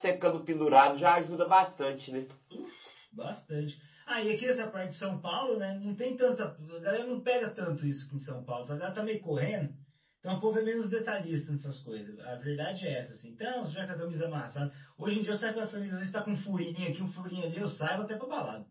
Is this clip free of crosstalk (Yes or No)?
Yes